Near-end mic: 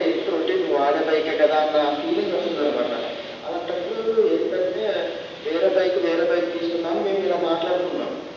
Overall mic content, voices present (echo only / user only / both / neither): echo only